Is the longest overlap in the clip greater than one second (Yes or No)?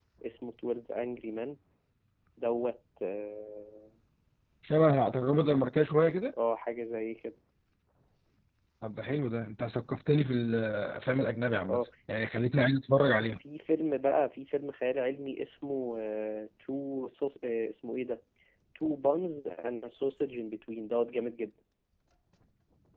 No